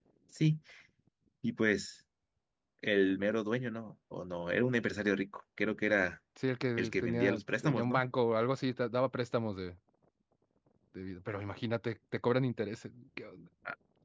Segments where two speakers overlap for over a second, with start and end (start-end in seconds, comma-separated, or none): 6.8-8.0